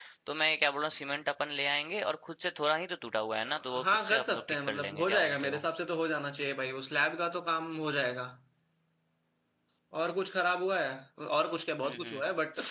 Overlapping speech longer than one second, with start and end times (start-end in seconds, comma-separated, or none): 3.8-5.6